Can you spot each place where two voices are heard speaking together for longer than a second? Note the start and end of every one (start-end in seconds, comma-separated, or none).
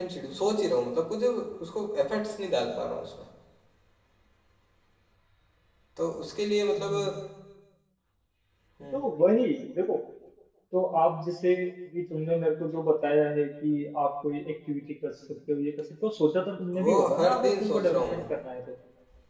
16.8-18.2